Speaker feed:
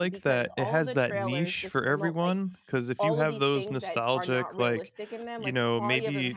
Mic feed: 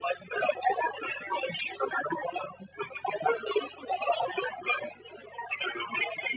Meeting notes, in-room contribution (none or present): none